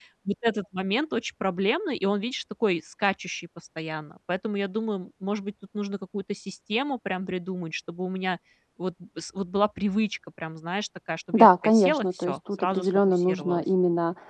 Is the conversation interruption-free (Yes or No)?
No